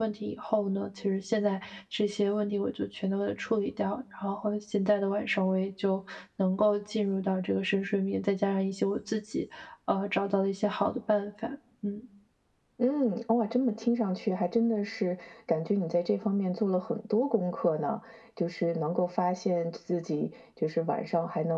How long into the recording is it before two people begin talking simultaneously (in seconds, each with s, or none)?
none